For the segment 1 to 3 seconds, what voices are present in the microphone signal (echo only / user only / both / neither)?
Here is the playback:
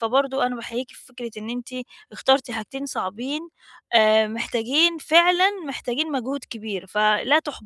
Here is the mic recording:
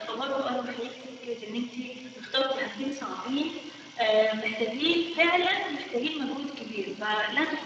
echo only